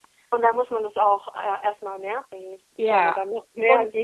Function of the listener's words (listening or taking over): taking over